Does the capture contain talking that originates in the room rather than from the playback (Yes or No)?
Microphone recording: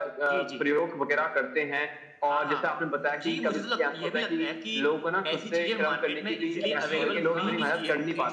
Yes